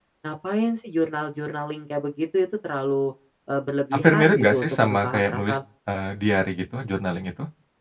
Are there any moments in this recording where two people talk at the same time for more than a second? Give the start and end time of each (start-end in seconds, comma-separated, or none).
3.9-5.6